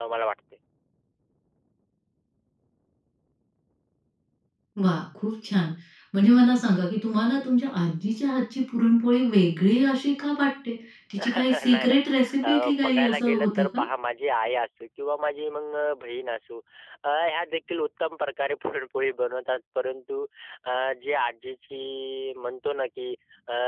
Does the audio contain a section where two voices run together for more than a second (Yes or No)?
Yes